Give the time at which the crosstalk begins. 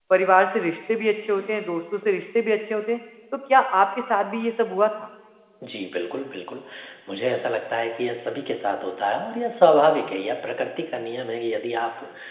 none

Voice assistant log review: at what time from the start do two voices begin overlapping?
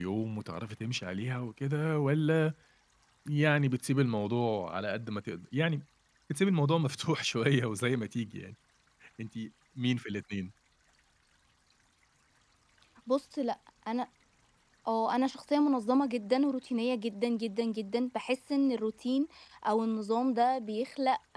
none

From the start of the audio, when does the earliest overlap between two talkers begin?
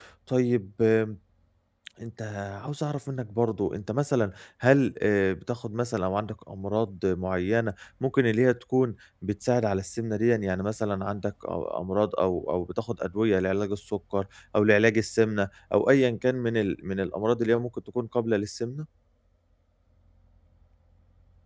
none

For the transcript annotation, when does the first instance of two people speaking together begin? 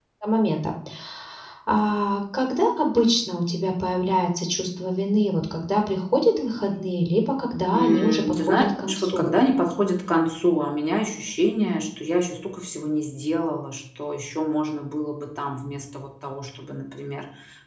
7.7 s

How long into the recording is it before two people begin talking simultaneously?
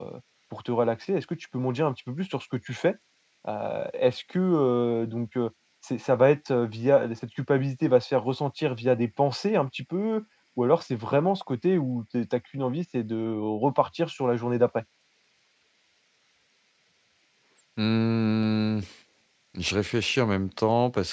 none

